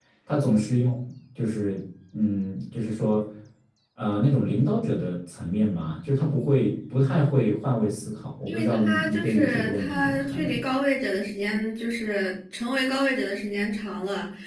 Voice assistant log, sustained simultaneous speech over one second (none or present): present